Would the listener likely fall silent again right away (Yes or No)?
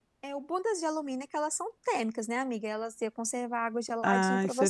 No